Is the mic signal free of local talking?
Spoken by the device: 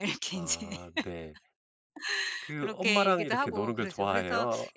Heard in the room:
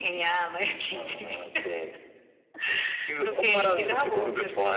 Yes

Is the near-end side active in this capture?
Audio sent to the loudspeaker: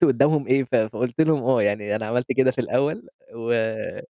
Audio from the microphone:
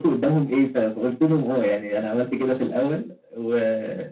No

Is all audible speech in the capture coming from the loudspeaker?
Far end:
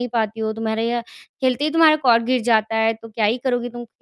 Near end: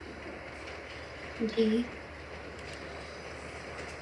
No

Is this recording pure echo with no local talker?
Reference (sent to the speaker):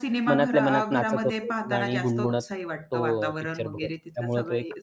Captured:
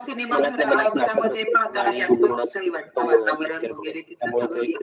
Yes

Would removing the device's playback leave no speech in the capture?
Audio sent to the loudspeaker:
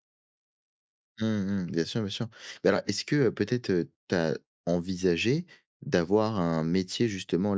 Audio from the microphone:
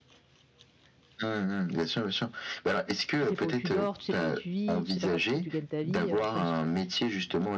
No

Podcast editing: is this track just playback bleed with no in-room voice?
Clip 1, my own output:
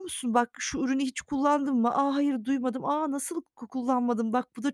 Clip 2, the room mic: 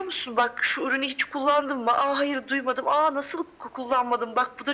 Yes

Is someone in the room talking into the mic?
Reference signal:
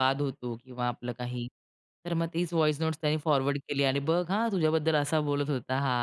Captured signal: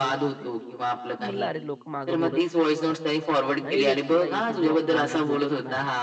Yes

